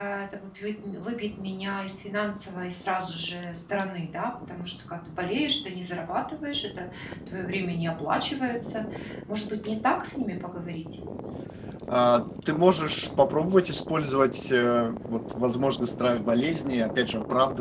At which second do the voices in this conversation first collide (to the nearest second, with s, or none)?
none